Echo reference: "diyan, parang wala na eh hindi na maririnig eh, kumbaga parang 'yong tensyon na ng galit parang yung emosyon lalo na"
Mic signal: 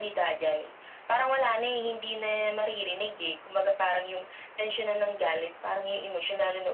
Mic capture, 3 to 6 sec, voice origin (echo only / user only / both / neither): echo only